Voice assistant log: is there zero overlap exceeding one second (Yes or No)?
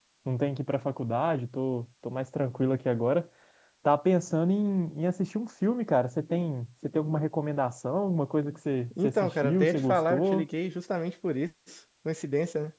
No